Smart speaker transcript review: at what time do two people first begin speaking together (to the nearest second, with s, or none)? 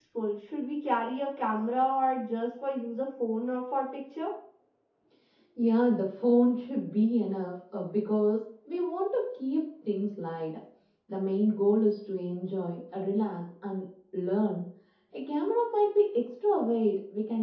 none